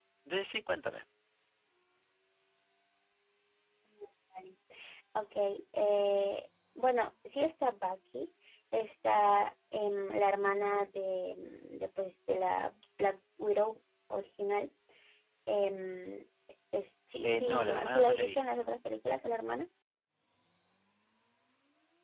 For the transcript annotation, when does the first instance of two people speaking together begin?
17 s

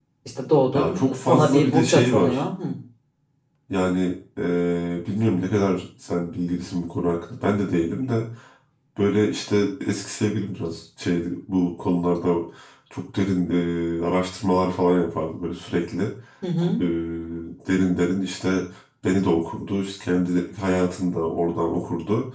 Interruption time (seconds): 1 s

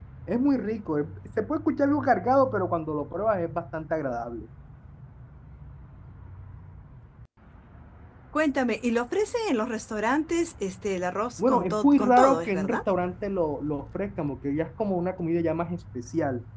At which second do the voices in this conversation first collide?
11 s

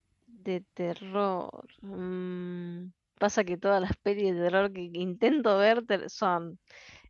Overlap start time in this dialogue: none

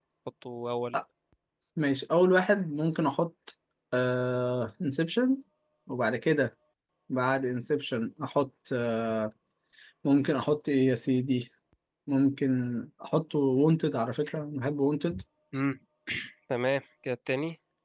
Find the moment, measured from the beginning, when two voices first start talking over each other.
none

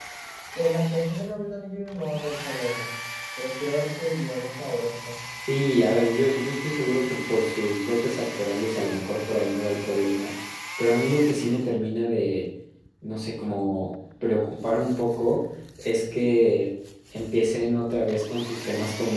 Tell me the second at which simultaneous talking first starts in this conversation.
none

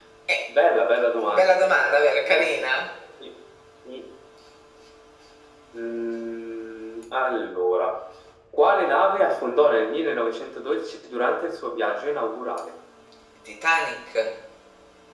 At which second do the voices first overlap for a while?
1 s

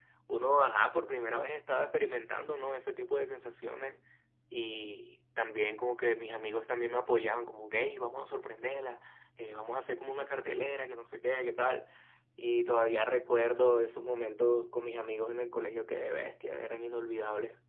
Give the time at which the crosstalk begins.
none

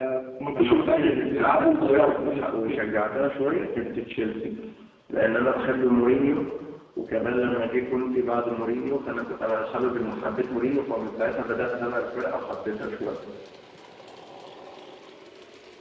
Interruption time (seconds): 1 s

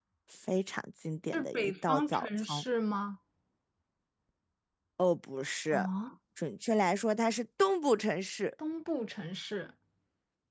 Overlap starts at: 1 s

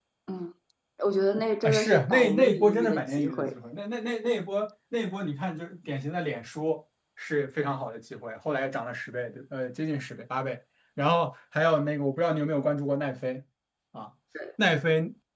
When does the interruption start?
2 s

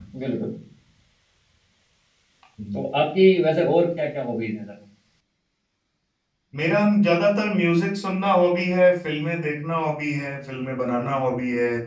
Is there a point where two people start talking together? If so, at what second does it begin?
none

